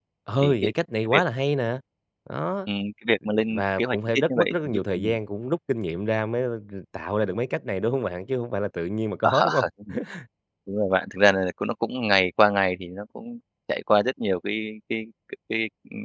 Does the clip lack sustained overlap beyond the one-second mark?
No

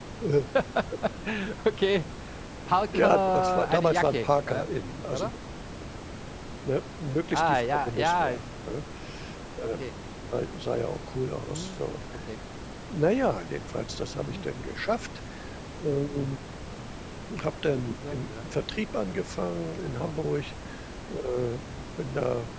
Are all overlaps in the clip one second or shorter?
No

